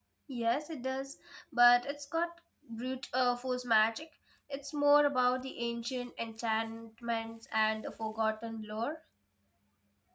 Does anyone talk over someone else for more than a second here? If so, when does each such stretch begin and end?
none

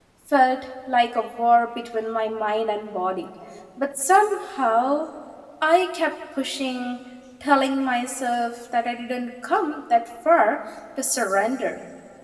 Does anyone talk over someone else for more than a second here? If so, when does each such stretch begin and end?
none

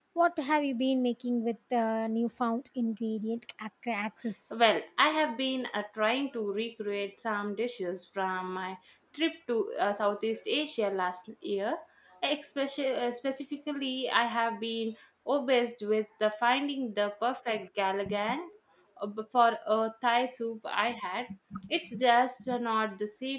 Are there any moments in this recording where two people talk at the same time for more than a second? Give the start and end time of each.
none

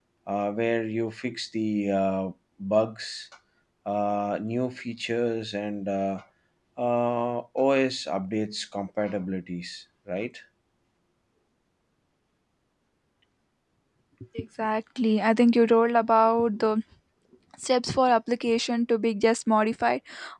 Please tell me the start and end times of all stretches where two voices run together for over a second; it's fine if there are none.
none

